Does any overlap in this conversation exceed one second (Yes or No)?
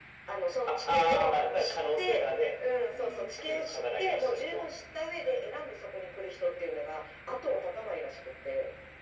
Yes